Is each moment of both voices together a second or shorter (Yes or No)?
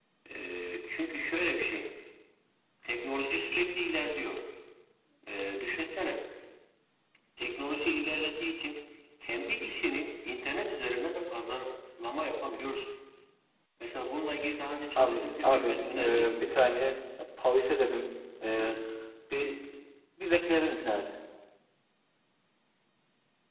No